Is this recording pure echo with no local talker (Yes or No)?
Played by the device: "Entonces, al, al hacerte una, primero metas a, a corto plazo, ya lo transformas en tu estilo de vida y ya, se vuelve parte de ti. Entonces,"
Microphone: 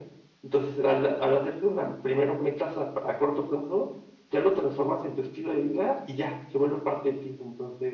Yes